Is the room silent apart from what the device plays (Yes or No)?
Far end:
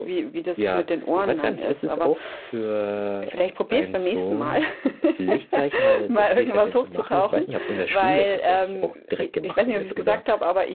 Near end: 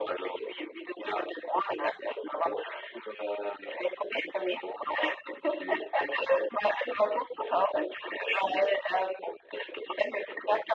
Yes